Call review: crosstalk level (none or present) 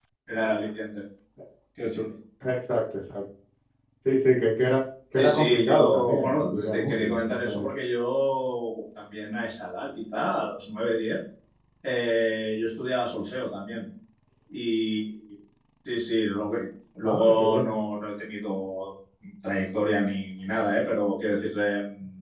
present